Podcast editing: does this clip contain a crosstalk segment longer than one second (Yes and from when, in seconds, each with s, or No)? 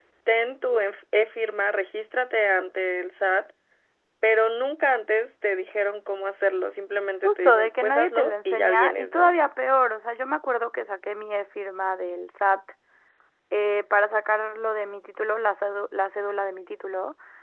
Yes, from 7.2 s